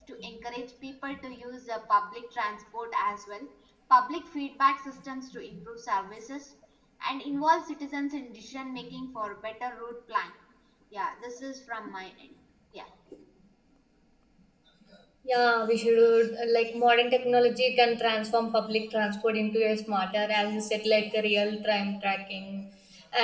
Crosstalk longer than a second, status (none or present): none